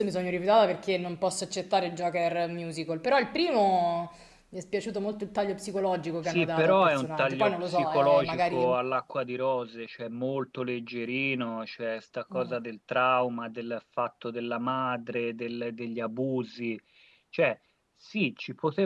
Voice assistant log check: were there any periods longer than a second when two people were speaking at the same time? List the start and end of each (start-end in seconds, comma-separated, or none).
6.2-8.8